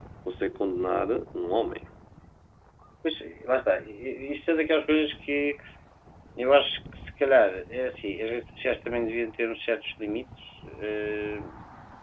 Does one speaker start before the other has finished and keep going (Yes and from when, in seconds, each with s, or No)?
No